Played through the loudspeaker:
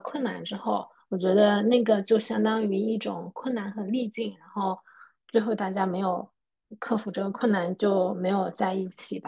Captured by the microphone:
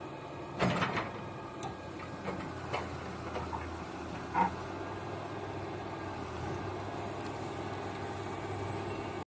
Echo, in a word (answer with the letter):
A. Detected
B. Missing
B